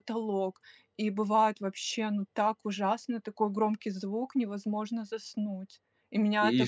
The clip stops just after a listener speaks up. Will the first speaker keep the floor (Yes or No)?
Yes